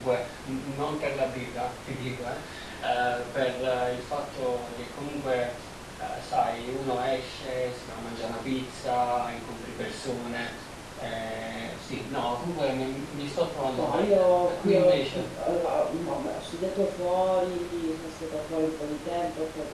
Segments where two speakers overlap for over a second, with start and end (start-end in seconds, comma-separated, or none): 13.8-15.3